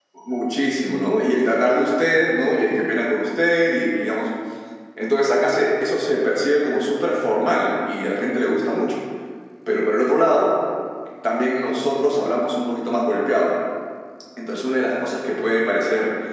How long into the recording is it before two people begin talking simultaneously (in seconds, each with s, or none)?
none